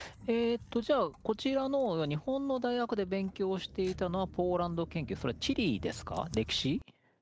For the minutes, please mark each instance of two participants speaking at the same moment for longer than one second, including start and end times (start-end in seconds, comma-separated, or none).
none